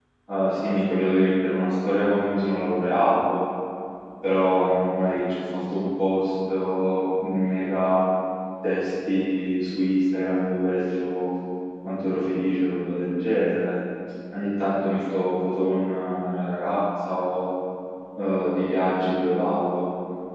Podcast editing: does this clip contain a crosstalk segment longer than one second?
No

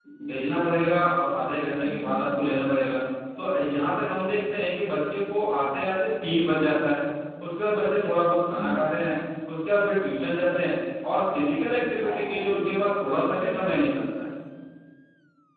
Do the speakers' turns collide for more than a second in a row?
No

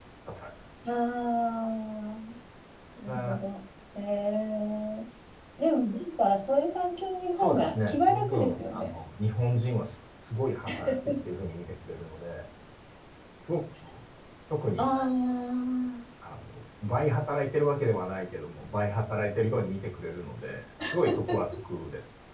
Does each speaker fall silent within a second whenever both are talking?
No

